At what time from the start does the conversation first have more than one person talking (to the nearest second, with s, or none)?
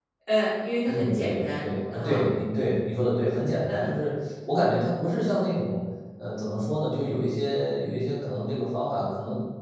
1 s